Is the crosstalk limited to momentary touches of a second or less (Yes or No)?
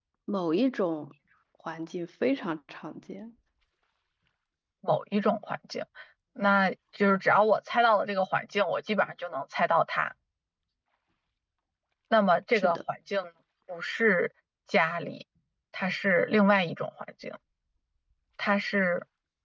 Yes